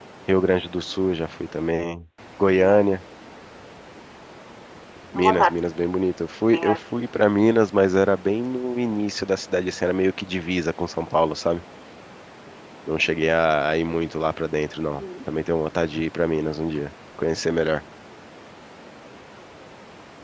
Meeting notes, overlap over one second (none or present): none